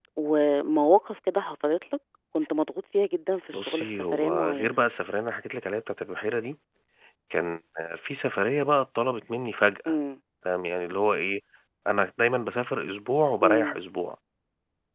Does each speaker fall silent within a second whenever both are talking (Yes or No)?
No